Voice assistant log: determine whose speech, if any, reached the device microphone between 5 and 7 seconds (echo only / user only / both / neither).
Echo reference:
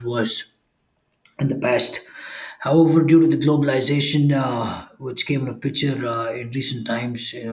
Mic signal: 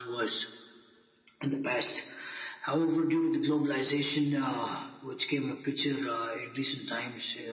echo only